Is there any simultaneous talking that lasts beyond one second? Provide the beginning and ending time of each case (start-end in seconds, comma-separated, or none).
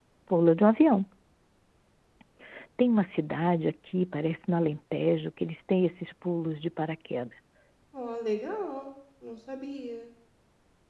none